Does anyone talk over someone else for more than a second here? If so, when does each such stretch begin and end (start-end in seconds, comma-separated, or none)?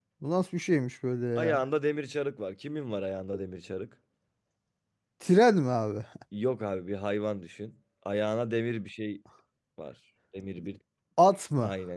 none